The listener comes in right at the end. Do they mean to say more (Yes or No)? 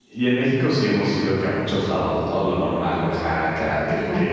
No